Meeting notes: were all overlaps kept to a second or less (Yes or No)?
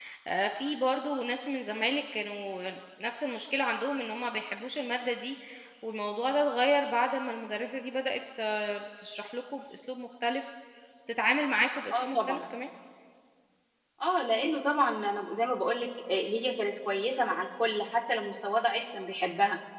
Yes